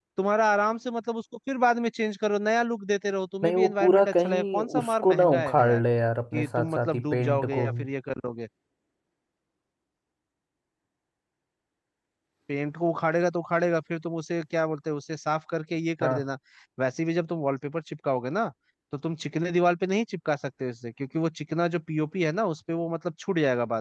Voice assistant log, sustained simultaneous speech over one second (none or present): present